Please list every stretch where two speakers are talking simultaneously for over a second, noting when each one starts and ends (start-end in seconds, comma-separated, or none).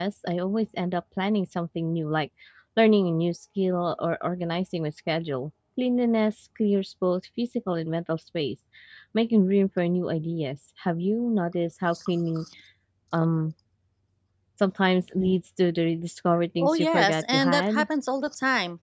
16.6-17.8